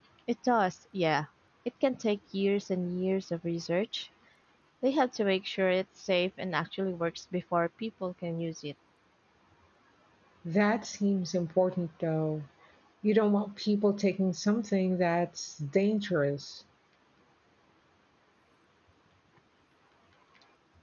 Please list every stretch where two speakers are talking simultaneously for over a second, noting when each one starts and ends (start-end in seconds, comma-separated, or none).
none